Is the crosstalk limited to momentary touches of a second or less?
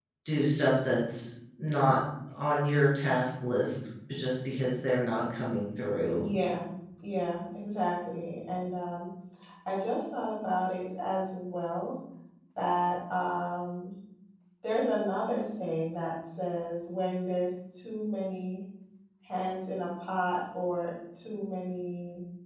Yes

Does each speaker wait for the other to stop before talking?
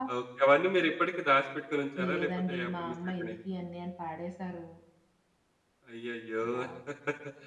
No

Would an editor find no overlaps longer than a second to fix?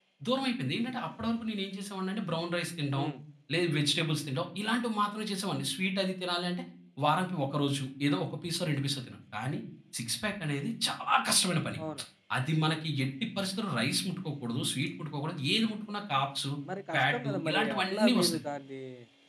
No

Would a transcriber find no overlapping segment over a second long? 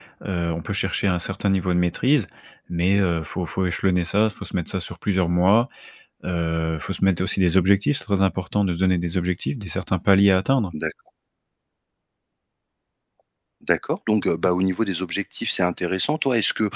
Yes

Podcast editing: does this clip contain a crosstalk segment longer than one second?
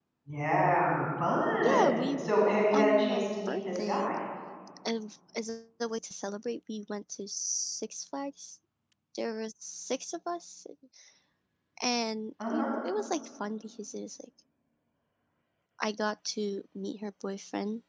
Yes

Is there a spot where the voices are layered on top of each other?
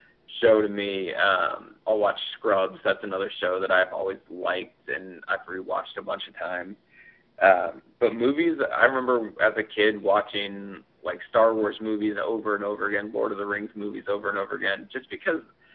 No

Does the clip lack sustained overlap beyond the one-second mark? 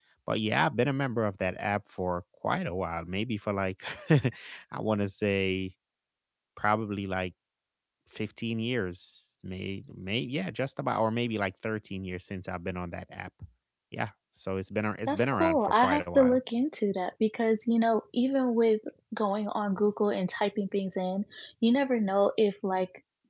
No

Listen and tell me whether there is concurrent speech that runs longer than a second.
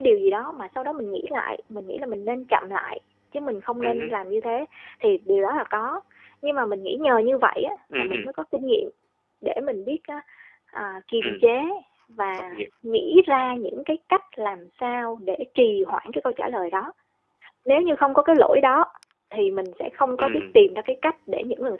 No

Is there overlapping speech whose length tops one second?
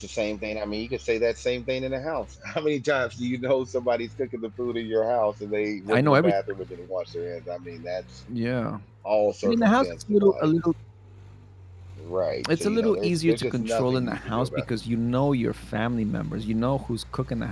Yes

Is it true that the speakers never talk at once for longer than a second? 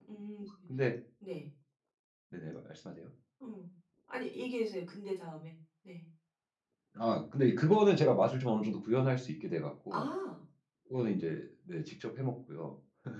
Yes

